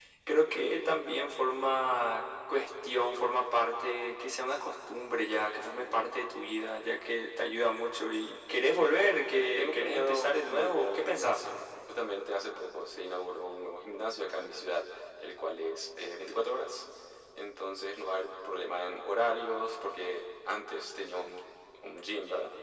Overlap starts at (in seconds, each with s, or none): 9.6 s